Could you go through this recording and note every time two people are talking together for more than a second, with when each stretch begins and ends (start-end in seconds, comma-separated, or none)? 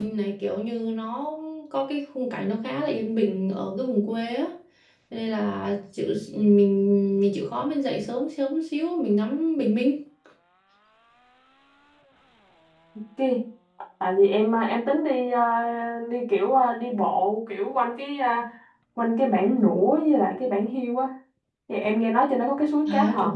none